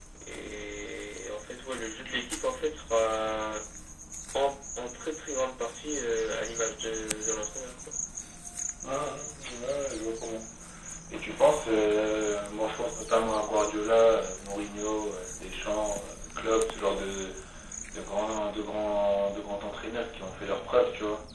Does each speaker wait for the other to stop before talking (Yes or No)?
Yes